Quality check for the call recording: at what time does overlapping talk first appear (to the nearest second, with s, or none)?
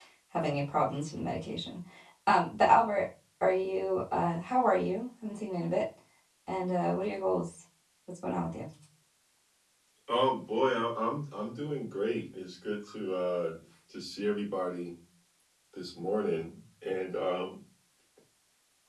none